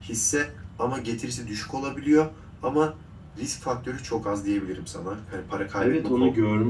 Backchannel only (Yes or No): No